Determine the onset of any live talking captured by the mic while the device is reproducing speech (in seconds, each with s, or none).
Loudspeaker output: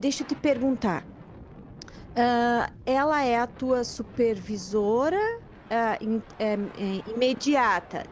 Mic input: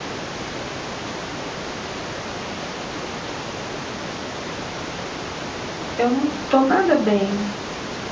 6.0 s